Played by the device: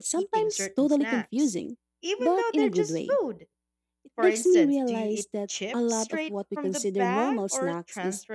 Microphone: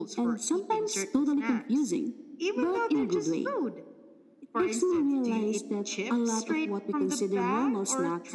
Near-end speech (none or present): none